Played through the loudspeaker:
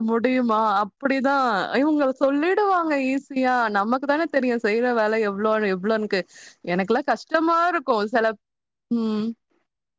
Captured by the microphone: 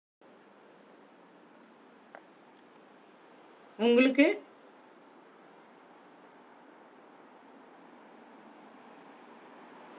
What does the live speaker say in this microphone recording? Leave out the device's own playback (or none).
உங்களுக்கு?